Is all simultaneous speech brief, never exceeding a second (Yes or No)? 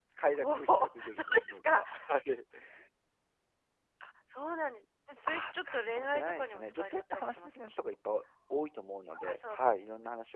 No